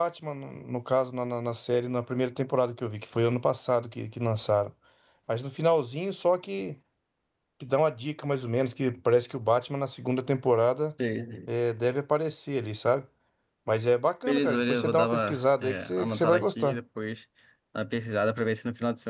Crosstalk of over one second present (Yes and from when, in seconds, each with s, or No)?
Yes, from 14.3 s